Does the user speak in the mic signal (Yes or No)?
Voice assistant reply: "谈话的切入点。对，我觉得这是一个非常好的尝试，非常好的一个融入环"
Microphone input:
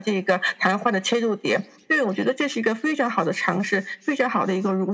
No